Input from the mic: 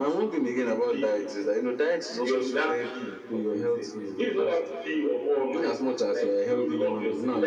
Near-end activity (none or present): none